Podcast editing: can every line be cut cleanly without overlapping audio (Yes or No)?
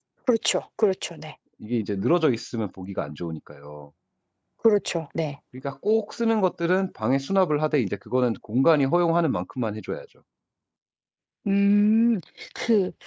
Yes